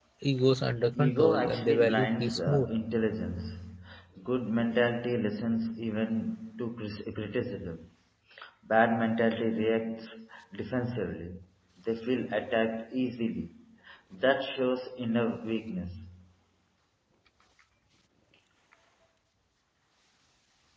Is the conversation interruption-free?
No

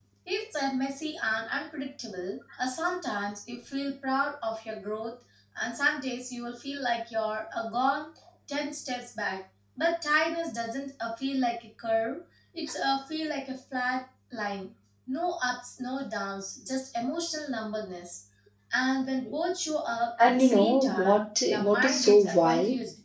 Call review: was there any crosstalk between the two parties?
Yes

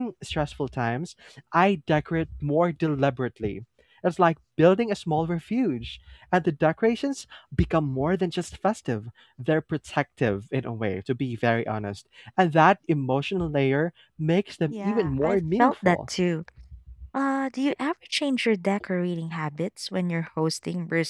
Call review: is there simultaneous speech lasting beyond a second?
Yes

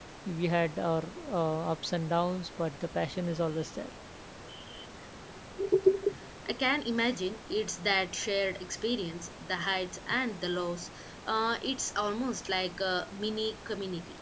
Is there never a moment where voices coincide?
Yes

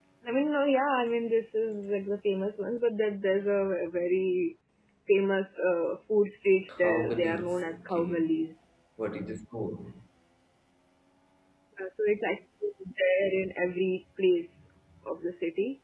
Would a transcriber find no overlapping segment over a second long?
No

